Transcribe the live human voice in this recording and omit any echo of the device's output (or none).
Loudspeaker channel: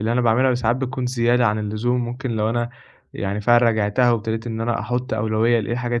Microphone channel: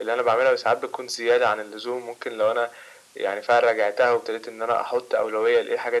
none